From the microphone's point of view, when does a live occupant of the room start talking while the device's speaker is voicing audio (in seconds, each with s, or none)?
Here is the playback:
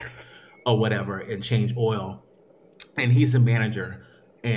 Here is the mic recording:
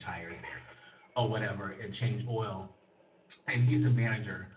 none